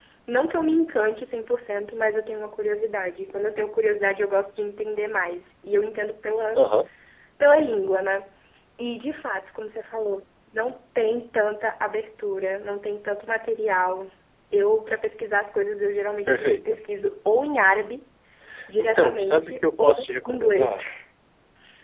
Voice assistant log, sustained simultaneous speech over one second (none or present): present